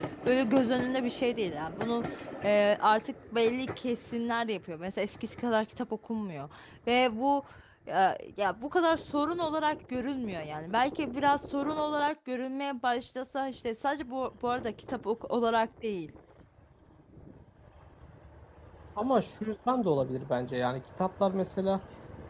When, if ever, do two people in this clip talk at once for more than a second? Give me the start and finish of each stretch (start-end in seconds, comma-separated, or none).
none